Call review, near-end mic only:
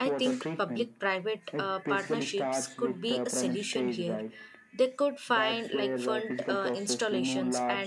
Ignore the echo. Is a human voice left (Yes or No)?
Yes